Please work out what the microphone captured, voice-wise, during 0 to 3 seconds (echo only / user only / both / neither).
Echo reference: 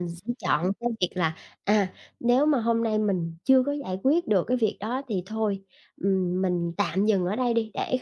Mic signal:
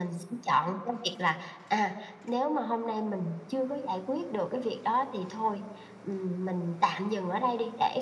echo only